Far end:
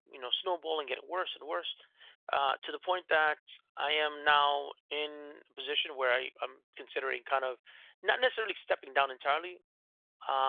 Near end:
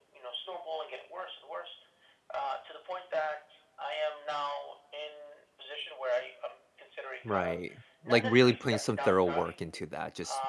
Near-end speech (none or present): present